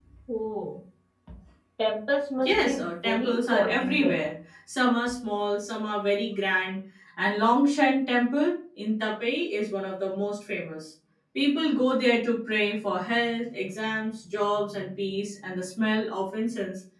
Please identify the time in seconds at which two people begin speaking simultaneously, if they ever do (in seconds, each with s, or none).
2.4 s